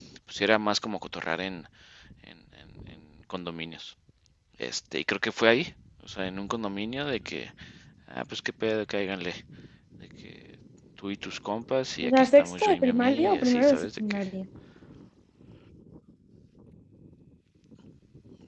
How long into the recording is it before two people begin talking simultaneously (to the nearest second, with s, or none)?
12 s